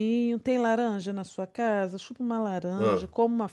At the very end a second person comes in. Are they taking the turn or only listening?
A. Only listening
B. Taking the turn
A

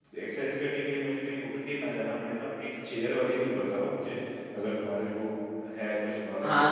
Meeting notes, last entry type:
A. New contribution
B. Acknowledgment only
A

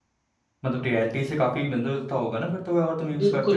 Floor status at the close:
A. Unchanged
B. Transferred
B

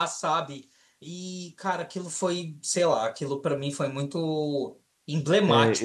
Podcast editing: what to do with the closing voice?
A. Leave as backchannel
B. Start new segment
B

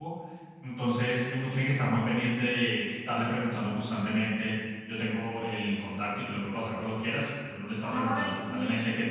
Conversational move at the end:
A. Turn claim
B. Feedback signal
B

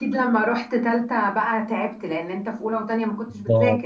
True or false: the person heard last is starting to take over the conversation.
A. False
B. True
B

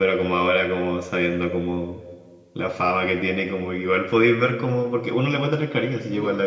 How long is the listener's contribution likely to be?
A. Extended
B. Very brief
A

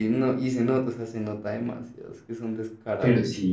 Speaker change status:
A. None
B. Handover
B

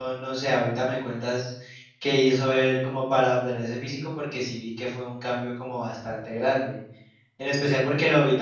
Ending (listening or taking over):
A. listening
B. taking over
A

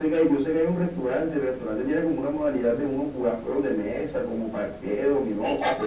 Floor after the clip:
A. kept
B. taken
B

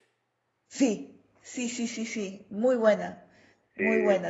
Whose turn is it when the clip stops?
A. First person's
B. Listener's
A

